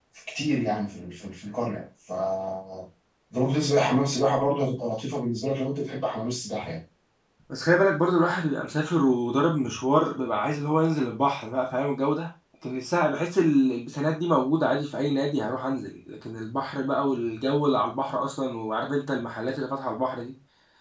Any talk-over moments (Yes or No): No